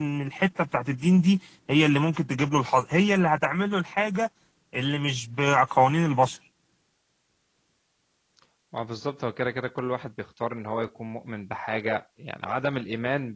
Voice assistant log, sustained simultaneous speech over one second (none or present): none